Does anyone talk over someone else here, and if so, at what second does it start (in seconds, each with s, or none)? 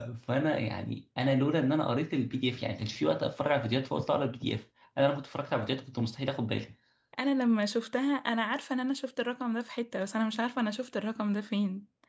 none